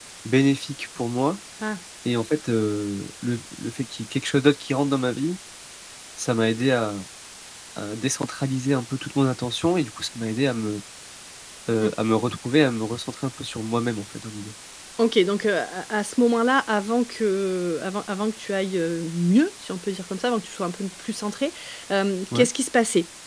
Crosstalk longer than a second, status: none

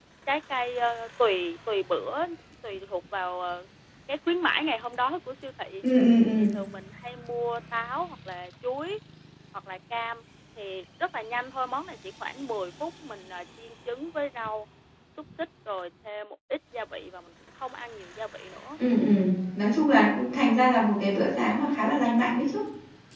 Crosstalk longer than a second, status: none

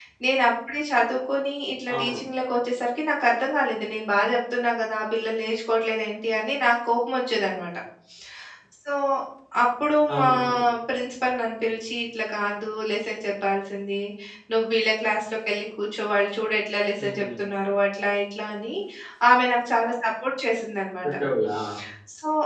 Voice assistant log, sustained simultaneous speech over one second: none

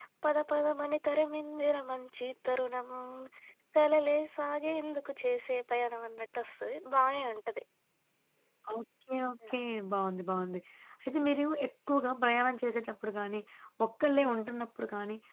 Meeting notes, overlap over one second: none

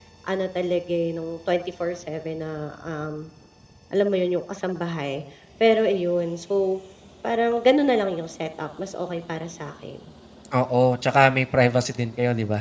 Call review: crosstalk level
none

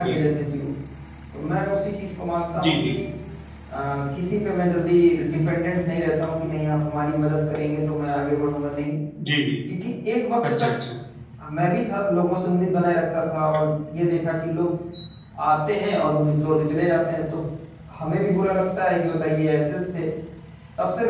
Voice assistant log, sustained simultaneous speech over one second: none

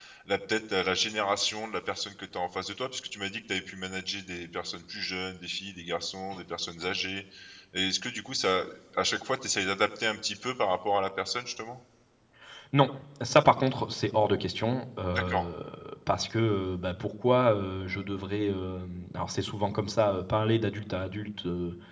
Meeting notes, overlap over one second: none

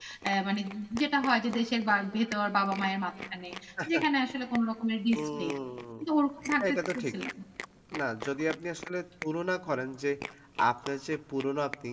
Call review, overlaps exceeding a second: none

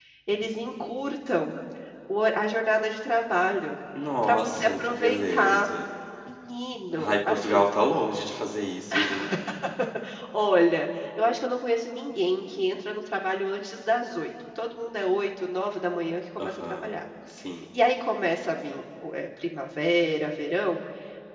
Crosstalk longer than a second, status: present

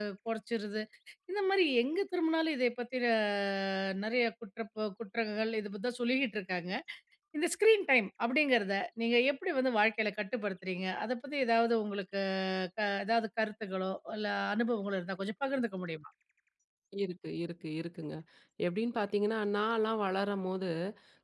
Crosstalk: none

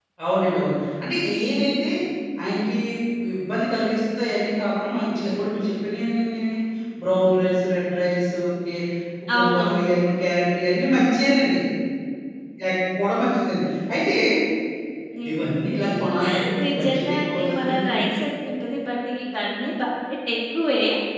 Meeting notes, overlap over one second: present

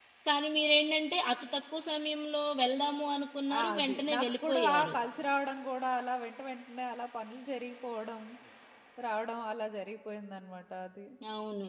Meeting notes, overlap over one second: present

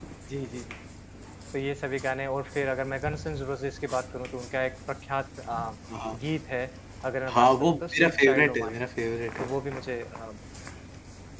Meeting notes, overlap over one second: present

